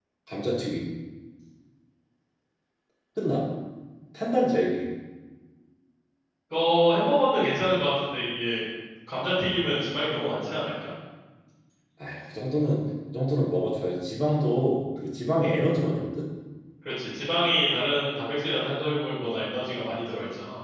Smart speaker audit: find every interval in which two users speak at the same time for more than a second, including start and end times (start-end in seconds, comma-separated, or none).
none